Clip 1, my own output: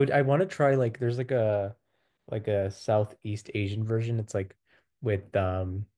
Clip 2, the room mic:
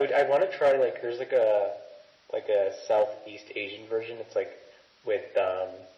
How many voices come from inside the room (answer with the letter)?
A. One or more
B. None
B